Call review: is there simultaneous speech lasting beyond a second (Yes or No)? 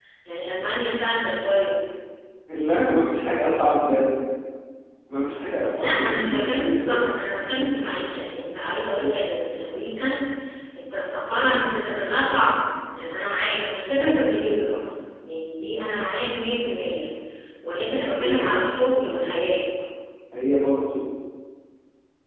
Yes